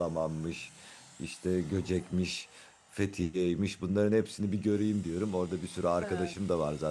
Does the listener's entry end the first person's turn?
No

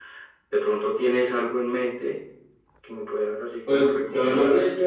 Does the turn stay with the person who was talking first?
No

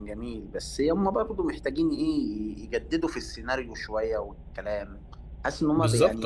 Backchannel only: No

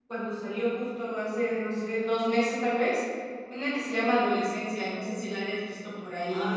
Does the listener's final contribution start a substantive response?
Yes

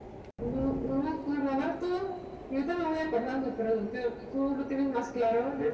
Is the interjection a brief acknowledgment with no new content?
No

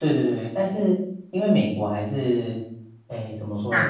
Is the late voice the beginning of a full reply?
No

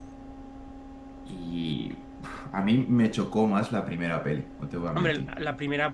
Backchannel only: No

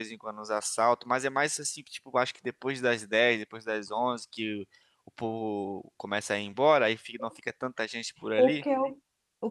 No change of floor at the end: No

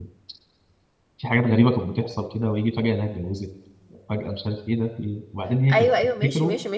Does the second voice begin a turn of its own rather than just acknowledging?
Yes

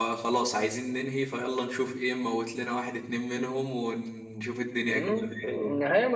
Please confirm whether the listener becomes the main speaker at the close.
Yes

